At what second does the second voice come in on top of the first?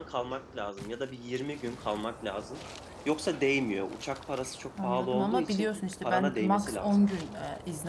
4.8 s

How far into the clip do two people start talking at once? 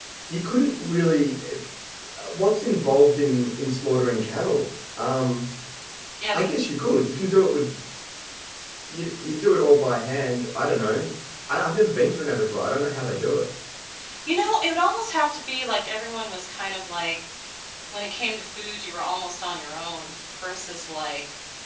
none

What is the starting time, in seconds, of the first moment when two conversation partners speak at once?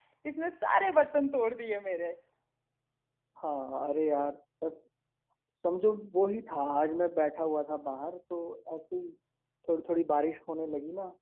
none

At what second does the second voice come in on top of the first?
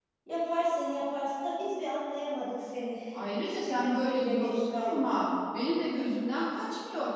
3.4 s

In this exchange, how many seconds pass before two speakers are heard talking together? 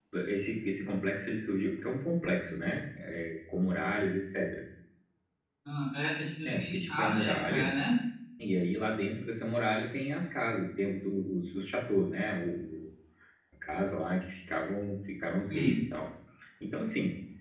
6.4 s

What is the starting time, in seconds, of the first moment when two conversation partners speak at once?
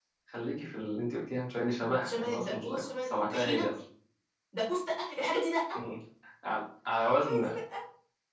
2.0 s

